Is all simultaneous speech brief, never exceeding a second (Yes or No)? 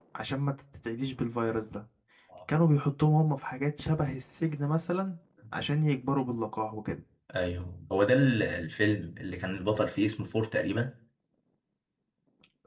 Yes